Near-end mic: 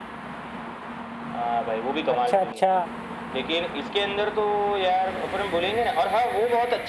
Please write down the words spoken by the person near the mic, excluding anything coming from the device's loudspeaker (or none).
अच्छा अच्छा